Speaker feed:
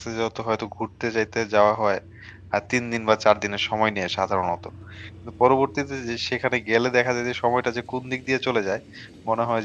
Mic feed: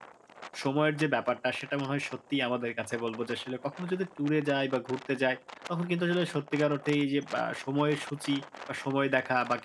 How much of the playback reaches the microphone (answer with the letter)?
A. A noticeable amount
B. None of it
B